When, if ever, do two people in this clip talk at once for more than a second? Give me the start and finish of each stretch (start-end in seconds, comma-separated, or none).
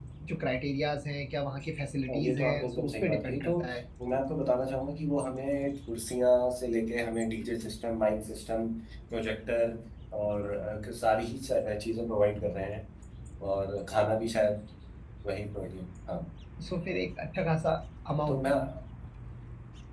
2.1-3.5